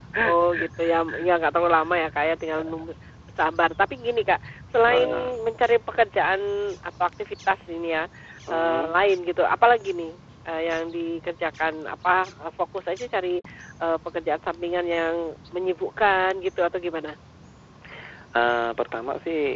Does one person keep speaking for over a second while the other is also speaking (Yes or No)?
No